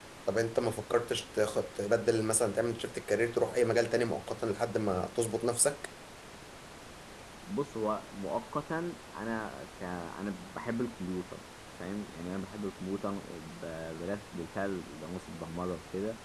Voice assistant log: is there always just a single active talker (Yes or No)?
Yes